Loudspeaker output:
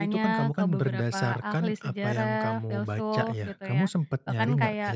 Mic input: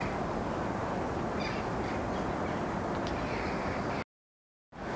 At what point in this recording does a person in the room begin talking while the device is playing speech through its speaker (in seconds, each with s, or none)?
none